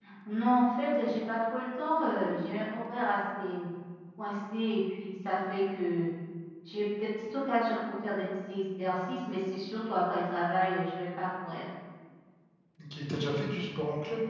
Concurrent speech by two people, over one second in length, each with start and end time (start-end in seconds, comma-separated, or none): none